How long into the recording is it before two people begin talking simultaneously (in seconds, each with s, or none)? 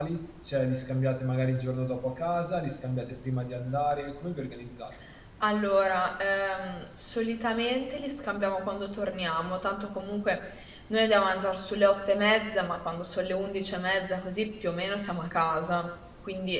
none